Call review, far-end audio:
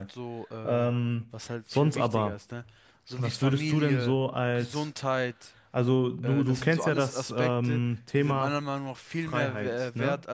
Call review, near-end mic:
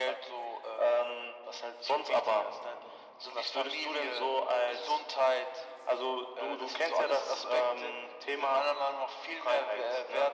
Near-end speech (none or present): none